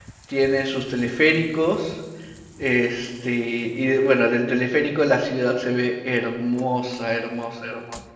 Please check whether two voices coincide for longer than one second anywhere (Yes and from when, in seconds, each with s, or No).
No